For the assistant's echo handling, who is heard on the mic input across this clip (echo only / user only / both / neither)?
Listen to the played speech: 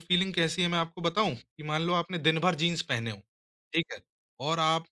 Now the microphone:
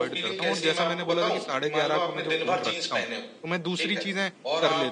both